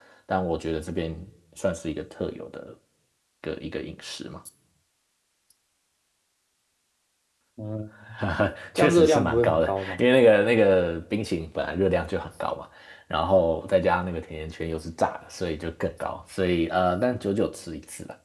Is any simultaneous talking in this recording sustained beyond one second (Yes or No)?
Yes